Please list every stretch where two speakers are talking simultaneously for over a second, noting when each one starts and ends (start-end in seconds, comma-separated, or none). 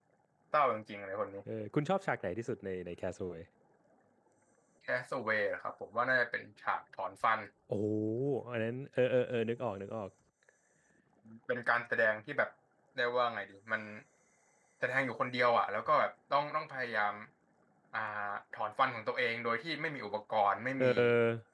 none